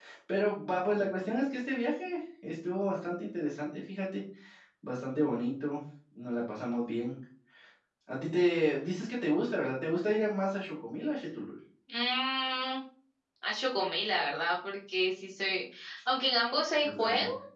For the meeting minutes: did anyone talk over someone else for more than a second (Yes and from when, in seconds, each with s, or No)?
No